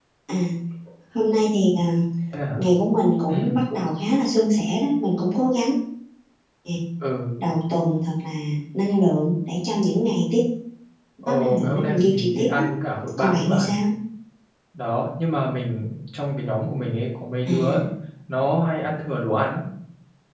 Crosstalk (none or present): present